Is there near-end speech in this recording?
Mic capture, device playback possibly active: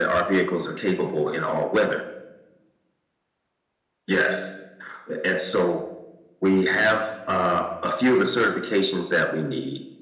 No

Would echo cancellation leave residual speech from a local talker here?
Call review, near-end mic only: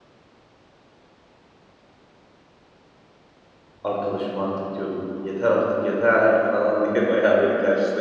Yes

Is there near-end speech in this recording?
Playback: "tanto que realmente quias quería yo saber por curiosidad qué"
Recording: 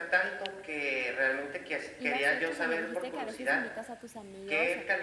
Yes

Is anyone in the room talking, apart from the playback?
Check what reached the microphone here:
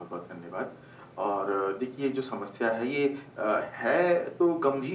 No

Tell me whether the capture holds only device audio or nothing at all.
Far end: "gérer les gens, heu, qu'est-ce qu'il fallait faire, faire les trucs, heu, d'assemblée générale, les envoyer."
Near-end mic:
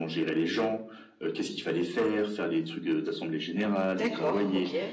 No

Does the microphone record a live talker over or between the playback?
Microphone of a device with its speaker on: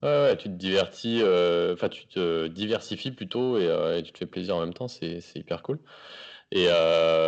No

